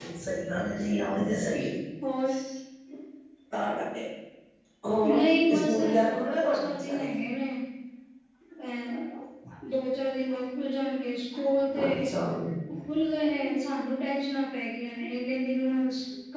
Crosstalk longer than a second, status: present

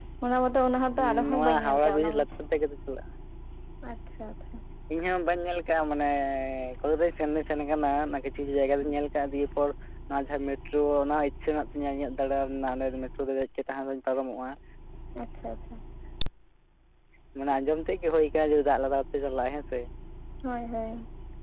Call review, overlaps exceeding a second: present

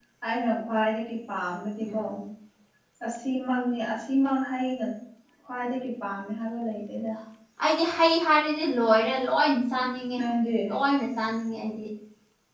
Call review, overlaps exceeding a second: none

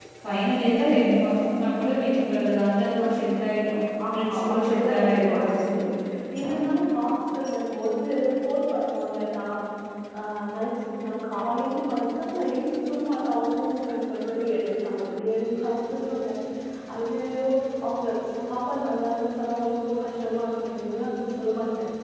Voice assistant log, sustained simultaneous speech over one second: present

